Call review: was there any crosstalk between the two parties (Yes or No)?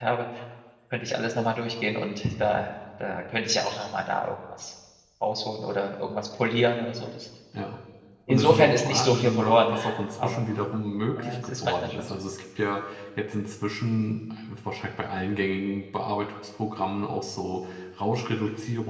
Yes